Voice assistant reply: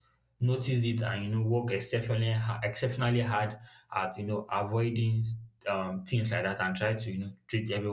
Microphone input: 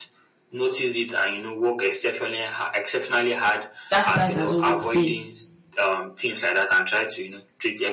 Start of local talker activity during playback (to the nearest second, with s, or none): 4 s